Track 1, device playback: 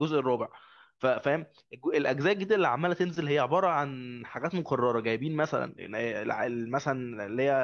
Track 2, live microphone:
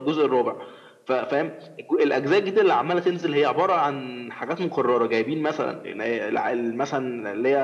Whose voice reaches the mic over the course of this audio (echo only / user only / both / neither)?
echo only